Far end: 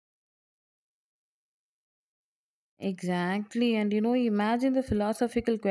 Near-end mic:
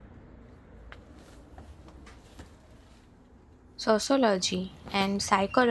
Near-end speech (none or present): present